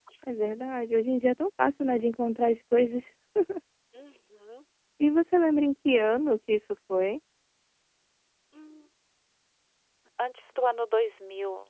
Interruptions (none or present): none